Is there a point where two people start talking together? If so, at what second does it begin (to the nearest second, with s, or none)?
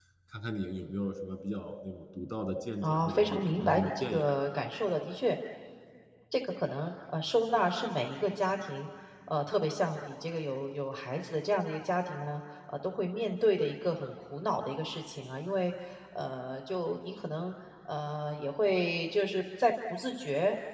3 s